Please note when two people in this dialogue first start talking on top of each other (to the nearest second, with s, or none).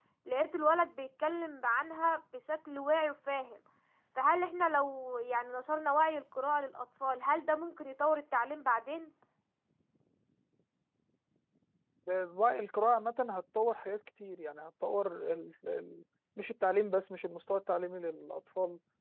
none